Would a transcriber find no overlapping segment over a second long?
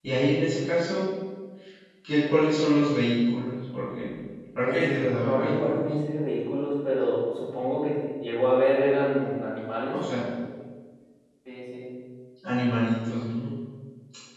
No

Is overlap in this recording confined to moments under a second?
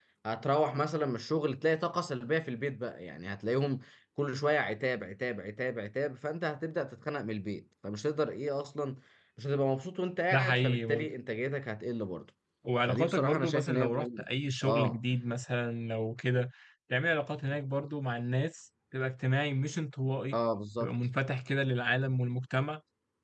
No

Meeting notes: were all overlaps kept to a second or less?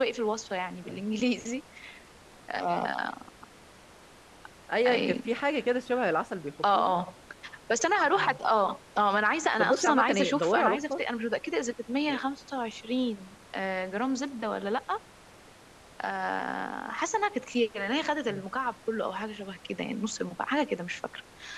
No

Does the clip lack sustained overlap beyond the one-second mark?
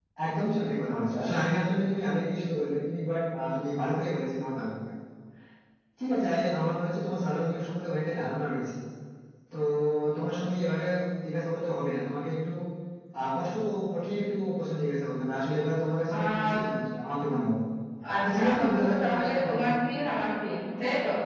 No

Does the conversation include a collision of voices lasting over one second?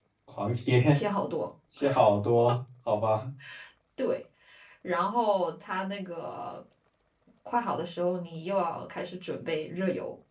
No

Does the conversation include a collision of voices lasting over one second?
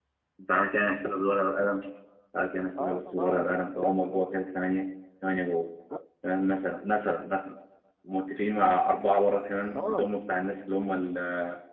Yes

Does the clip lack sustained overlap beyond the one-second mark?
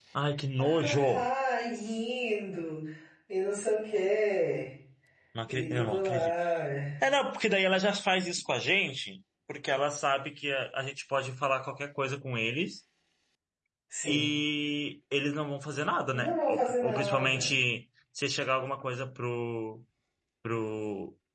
No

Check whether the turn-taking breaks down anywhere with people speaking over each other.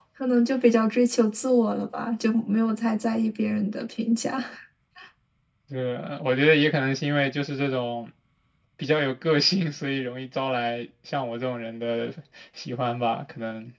No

